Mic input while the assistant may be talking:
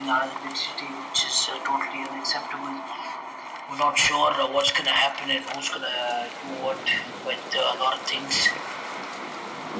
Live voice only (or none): none